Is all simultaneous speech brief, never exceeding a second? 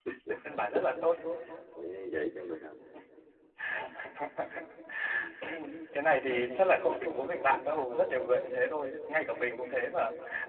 Yes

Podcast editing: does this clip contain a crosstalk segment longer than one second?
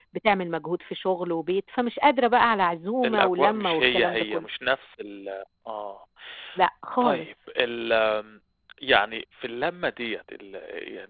Yes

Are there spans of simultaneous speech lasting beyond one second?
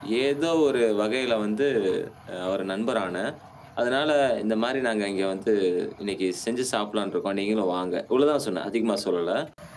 No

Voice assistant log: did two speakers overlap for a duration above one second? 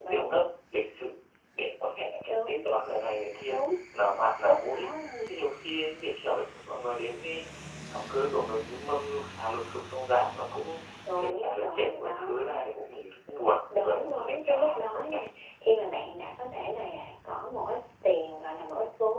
Yes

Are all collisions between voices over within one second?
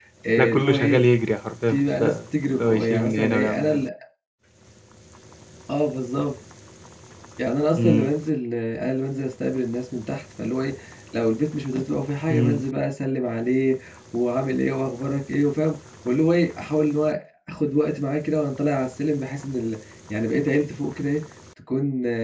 No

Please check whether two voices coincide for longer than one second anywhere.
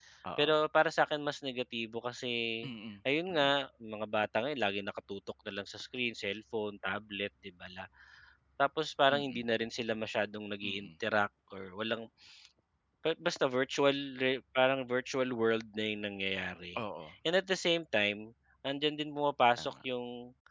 No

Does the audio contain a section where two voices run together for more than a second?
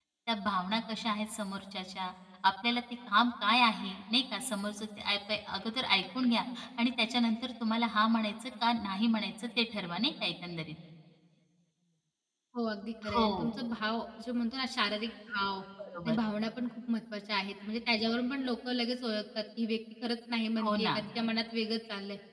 No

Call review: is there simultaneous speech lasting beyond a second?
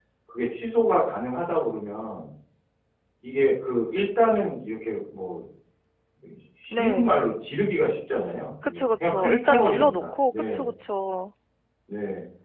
Yes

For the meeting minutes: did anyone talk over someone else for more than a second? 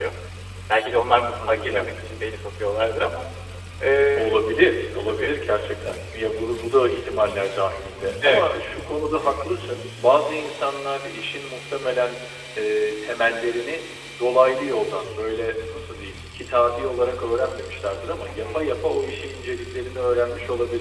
No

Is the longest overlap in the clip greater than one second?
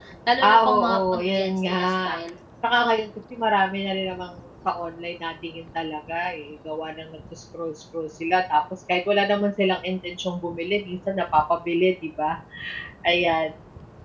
Yes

